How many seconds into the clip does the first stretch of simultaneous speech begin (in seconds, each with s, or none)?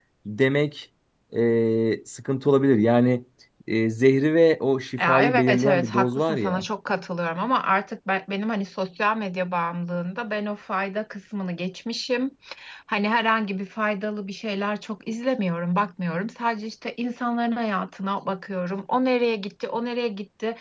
5.0 s